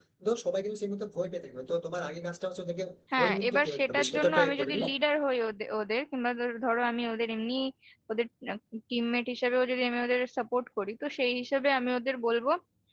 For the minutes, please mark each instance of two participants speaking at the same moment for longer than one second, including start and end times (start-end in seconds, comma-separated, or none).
3.2-4.9